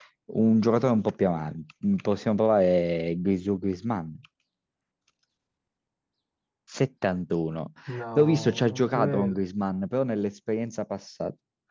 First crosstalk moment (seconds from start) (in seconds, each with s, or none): 8.2 s